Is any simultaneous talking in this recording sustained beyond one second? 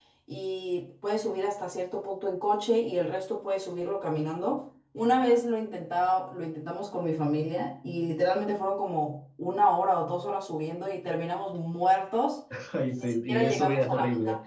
Yes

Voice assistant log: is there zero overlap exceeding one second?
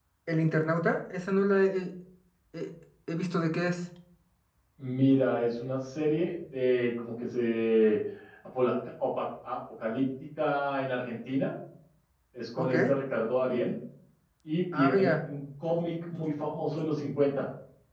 Yes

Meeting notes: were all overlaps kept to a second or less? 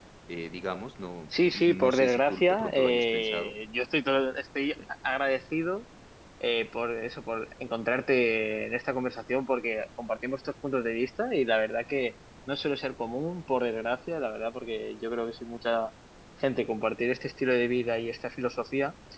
No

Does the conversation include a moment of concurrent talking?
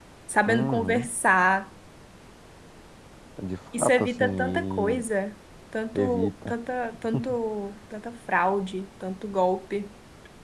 Yes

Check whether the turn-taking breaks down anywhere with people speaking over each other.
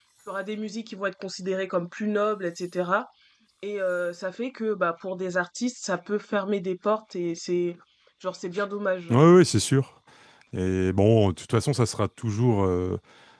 No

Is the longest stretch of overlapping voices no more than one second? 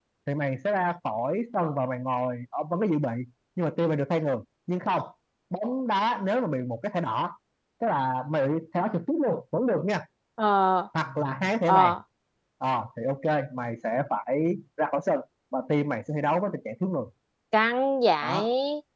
Yes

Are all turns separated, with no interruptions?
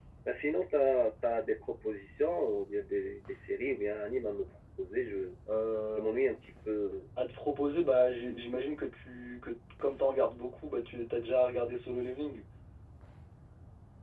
Yes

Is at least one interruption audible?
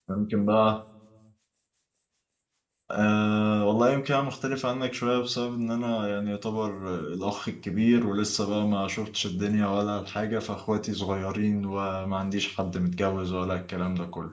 No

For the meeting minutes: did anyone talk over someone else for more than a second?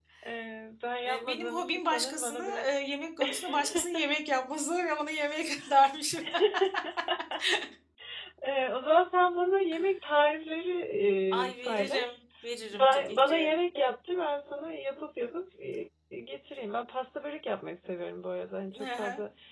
Yes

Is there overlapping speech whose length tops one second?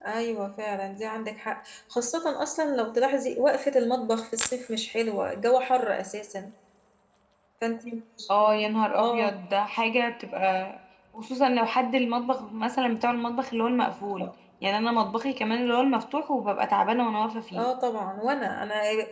No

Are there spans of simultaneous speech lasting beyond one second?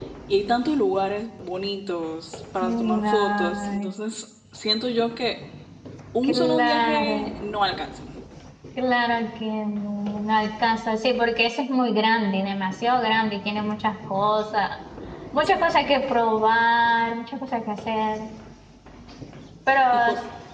Yes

